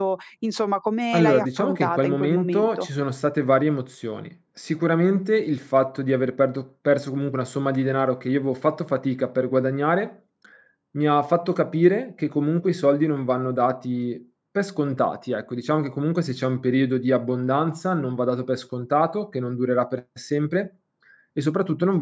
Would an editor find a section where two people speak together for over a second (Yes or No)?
Yes